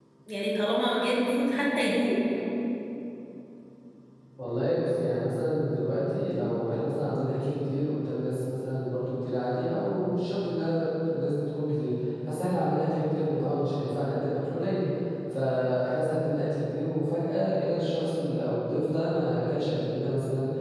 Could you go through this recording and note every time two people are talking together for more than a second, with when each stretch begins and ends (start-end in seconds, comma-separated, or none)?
none